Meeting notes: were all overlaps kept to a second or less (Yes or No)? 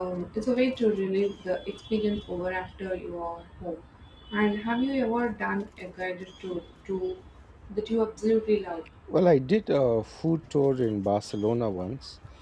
Yes